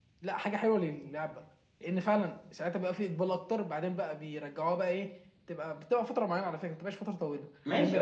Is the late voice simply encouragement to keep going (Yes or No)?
No